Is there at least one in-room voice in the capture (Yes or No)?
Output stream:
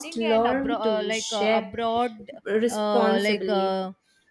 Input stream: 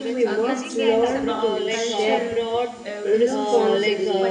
Yes